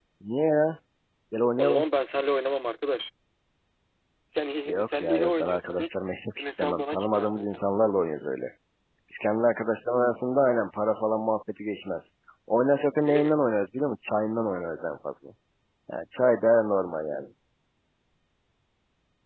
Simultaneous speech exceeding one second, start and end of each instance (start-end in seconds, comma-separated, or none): 4.7-5.9, 6.4-7.6